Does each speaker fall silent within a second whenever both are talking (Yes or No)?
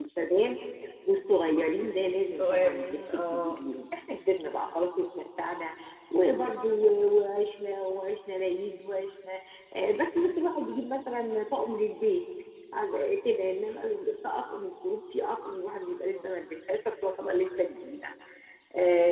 No